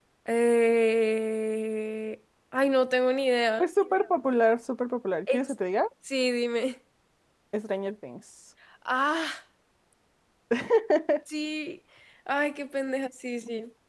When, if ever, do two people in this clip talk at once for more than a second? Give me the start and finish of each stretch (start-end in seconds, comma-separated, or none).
none